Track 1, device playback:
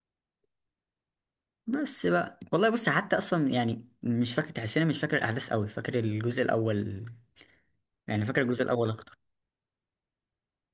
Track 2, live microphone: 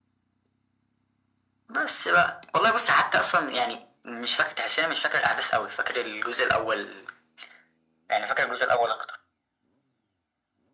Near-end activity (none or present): none